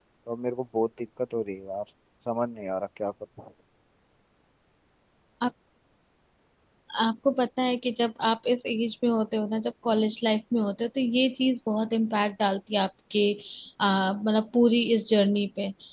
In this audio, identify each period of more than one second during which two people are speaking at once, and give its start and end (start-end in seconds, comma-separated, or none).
none